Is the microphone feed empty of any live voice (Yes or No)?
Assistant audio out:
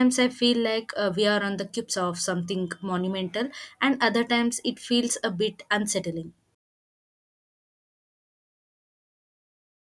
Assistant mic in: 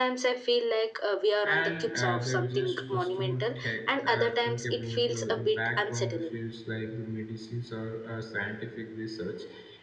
No